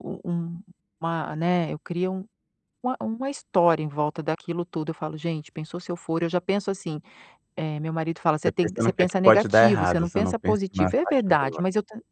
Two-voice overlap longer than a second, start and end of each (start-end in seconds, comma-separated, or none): 8.6-11.6